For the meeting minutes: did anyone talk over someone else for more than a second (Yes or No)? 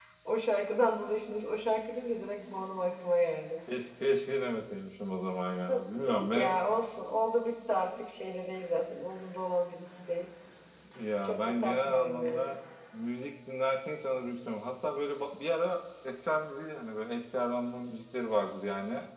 Yes